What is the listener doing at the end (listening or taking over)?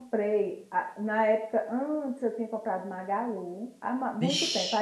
listening